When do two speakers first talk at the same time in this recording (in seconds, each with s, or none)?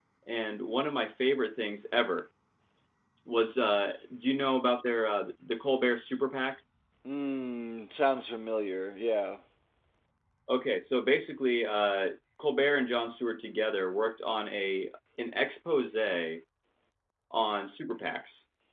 none